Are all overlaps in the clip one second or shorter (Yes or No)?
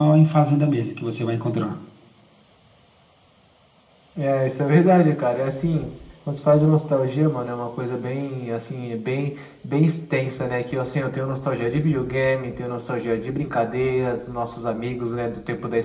Yes